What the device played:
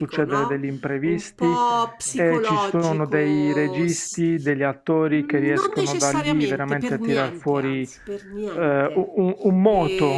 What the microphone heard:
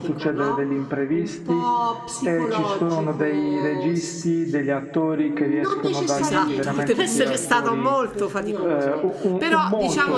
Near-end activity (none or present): present